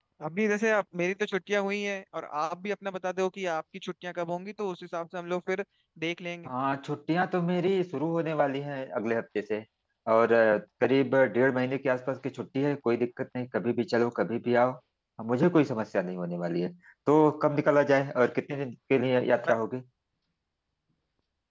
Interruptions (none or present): none